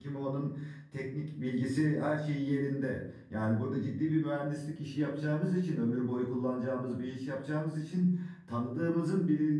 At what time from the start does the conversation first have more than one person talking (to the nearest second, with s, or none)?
none